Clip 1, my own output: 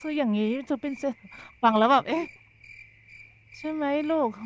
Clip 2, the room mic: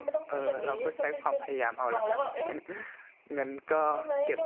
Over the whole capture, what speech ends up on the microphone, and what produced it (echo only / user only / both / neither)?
both